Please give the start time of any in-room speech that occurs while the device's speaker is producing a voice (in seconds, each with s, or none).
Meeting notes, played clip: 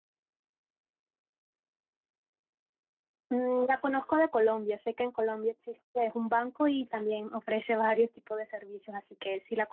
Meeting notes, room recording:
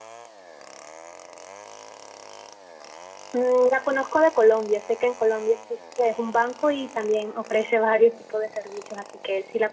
none